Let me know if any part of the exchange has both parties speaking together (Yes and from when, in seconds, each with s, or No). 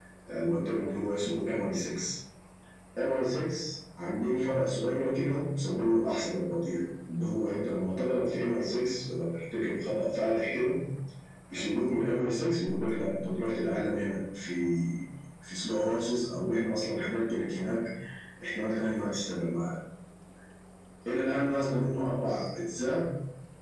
No